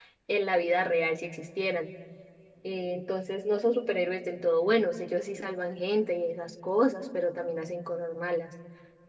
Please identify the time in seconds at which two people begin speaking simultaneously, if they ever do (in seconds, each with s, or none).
none